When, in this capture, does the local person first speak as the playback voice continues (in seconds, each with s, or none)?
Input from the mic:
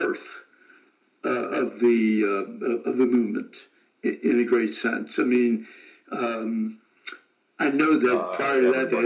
8.0 s